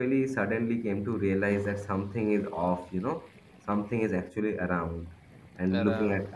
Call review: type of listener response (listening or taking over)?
listening